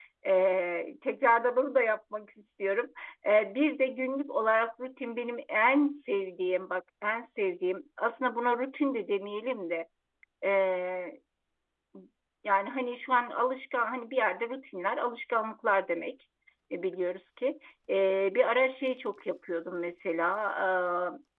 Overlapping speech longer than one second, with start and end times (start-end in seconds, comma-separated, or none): none